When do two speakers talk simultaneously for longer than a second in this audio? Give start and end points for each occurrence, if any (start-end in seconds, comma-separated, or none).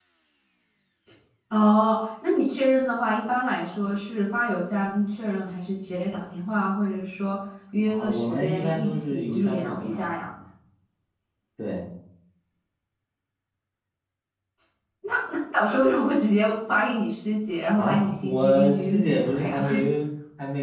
7.9-10.0, 17.7-19.6